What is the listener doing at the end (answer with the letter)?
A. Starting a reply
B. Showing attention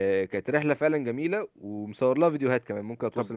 A